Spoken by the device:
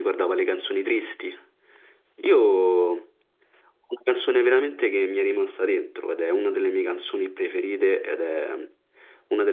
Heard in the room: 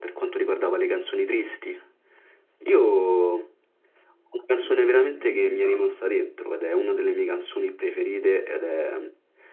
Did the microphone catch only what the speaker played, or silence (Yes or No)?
No